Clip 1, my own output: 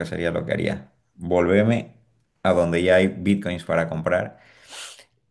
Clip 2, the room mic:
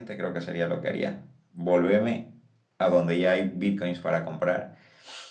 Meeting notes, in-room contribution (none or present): none